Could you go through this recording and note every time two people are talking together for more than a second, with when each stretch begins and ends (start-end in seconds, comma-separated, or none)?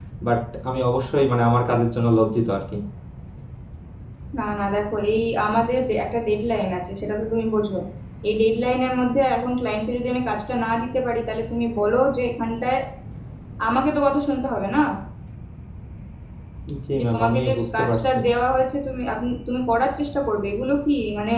17.0-18.2